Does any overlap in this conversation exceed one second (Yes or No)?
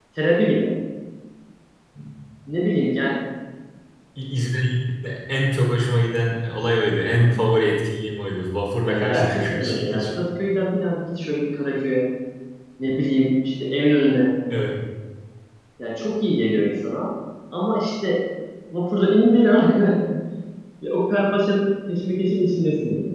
Yes